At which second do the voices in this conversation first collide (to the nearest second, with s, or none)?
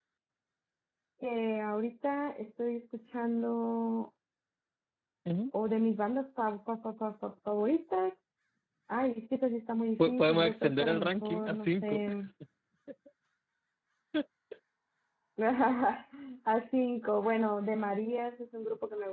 10 s